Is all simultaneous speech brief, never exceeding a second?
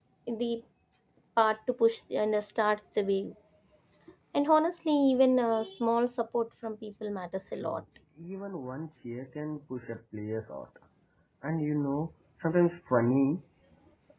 Yes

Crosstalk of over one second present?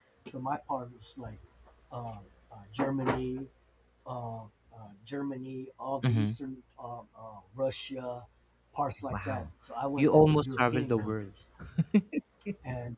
Yes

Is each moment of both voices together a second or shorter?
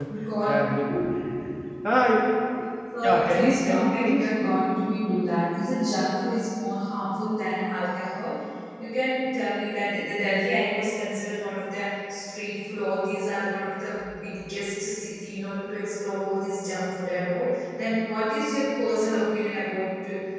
No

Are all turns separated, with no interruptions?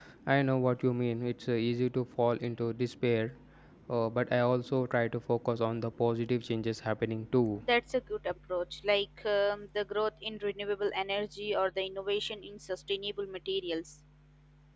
Yes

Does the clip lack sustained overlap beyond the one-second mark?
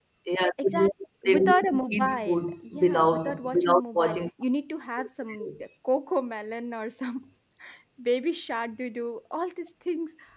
No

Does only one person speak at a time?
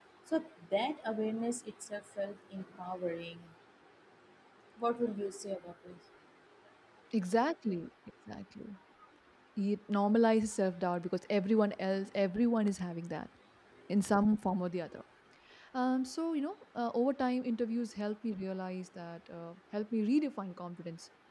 Yes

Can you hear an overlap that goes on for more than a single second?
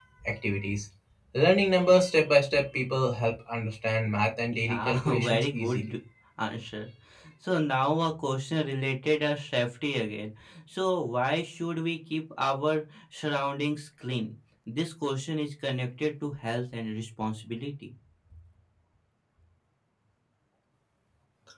Yes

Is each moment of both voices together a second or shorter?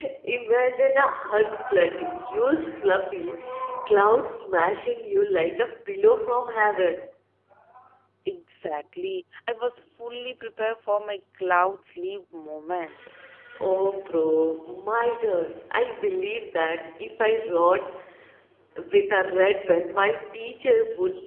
Yes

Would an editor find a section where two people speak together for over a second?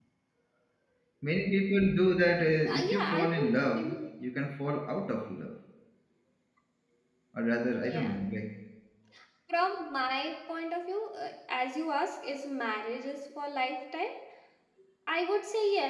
Yes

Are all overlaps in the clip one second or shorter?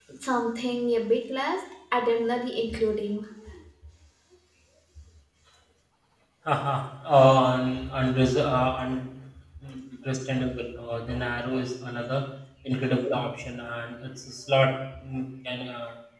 Yes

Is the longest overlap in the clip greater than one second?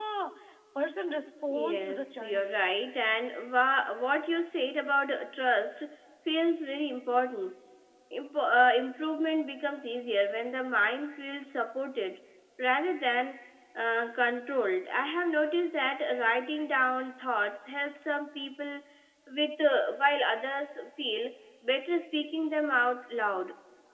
Yes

